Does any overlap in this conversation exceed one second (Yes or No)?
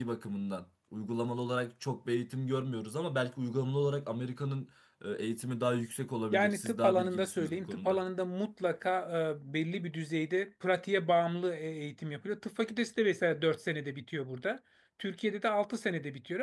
Yes